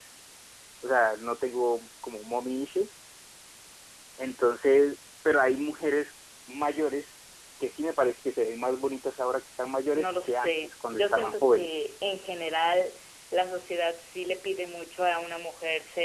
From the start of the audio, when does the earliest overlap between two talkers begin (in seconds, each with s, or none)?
9.9 s